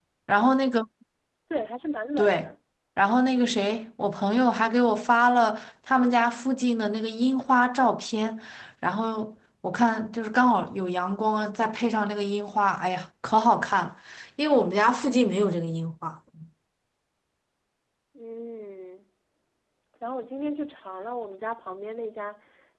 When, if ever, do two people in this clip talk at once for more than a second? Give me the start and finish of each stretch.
none

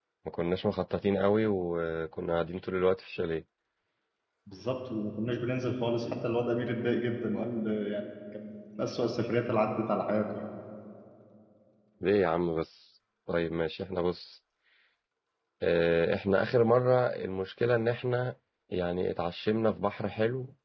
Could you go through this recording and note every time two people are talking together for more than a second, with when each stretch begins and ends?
none

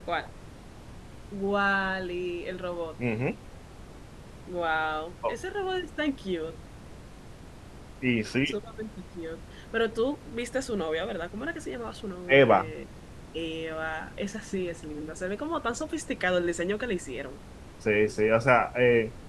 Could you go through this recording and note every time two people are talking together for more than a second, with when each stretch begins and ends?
none

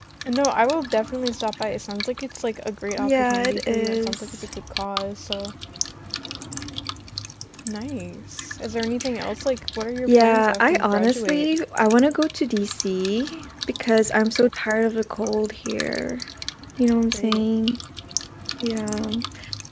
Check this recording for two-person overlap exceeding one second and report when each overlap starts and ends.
3.0-4.4, 10.1-11.5

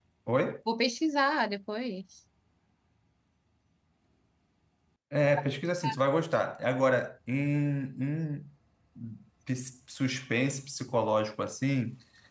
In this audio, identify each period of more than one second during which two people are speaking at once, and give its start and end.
none

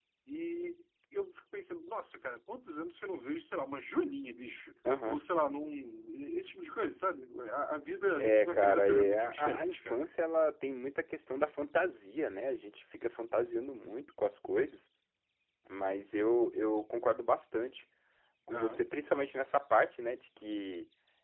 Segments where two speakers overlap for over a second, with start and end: 8.2-10.1

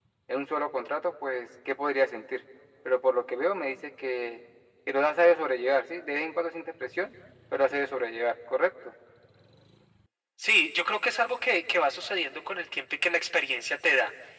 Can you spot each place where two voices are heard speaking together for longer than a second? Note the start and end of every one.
none

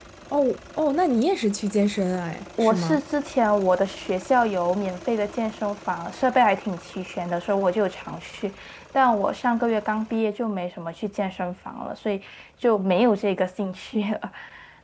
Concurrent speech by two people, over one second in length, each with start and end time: none

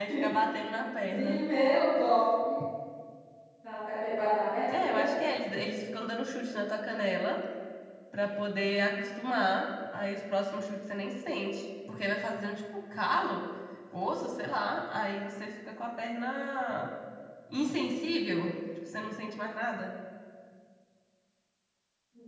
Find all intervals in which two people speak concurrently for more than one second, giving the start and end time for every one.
none

